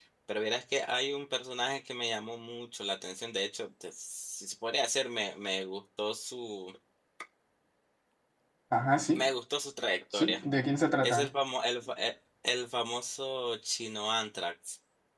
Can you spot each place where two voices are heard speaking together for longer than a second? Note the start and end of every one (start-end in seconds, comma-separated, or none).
none